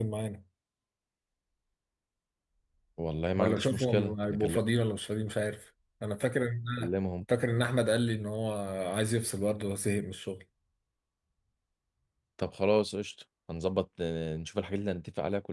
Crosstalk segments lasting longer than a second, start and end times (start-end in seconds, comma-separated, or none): 3.4-4.6